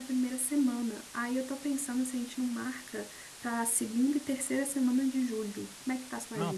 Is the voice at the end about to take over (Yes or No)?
Yes